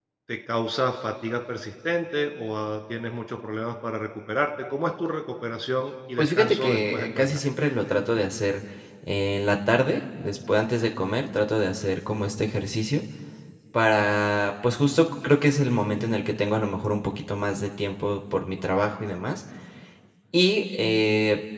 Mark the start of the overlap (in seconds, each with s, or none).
6.2 s